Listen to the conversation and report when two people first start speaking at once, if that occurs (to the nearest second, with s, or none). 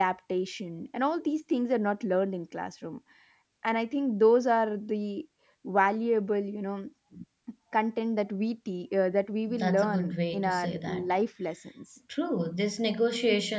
9 s